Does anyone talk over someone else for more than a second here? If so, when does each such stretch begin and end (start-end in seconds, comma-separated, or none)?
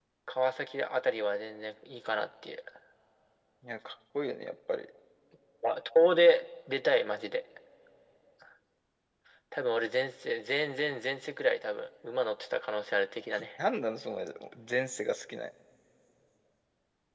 none